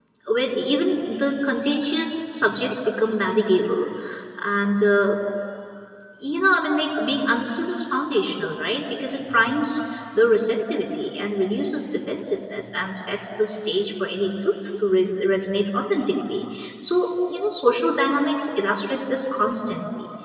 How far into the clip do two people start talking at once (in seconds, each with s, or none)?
none